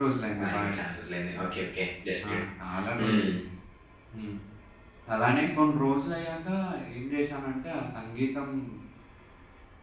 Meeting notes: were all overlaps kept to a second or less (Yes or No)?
Yes